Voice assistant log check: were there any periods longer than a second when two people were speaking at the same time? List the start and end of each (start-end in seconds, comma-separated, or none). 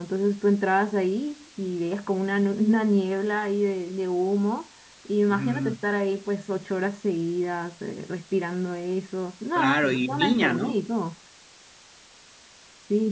9.5-10.8